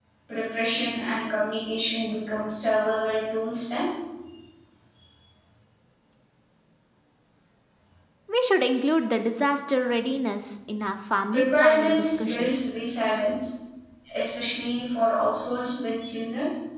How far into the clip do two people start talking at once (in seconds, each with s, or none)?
11.3 s